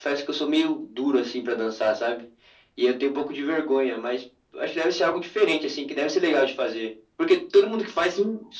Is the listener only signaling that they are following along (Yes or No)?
Yes